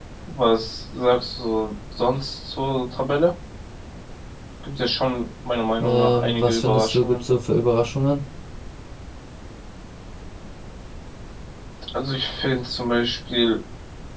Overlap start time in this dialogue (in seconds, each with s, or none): 5.8 s